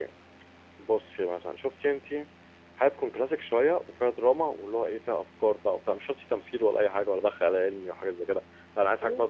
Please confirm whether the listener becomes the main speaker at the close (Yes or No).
No